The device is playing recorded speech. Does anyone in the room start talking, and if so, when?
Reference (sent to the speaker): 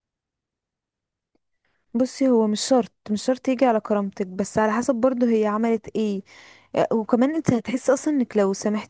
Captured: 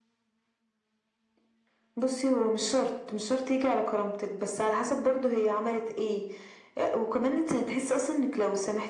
none

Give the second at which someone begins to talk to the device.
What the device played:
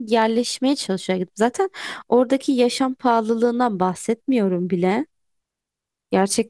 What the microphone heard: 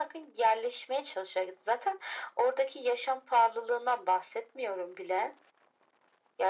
none

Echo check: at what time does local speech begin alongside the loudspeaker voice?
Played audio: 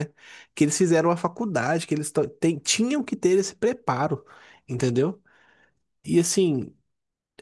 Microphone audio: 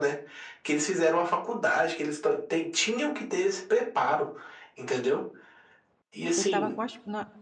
6.4 s

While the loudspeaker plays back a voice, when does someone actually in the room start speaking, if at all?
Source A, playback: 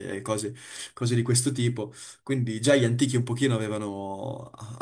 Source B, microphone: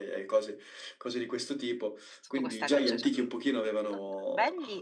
2.2 s

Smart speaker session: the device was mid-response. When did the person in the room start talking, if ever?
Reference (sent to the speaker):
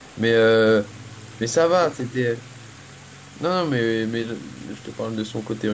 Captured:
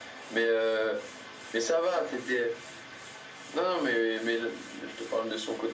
none

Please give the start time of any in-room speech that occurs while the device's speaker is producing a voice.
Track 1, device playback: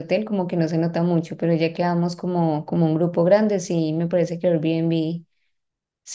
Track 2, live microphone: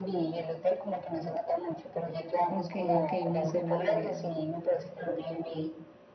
2.5 s

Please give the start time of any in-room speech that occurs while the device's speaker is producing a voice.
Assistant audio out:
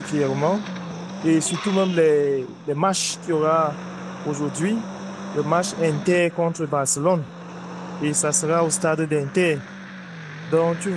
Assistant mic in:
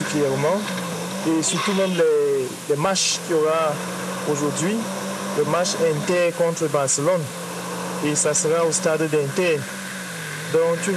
none

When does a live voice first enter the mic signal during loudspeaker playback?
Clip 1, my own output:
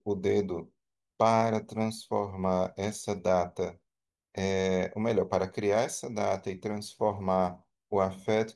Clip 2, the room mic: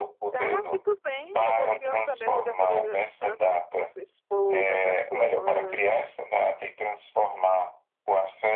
0.3 s

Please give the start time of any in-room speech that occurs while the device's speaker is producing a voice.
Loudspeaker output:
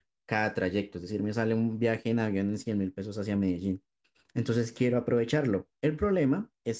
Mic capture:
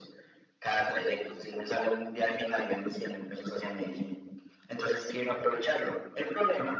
none

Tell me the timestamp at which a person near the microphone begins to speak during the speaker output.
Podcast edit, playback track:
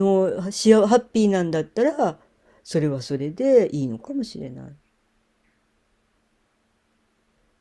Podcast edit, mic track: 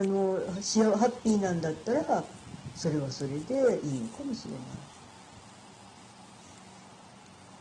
none

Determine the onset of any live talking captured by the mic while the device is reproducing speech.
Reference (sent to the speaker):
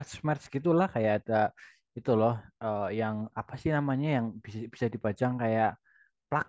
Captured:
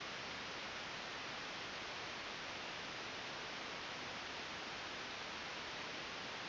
none

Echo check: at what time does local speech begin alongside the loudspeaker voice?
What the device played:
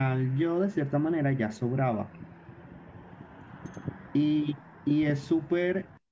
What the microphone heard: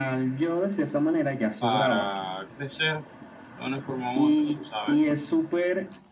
1.6 s

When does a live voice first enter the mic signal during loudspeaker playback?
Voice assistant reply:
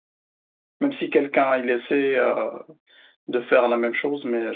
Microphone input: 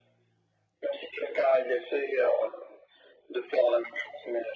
none

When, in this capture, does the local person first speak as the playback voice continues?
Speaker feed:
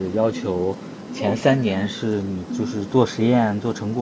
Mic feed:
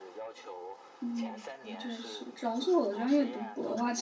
1.0 s

